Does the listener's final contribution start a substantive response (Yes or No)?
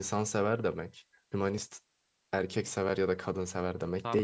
Yes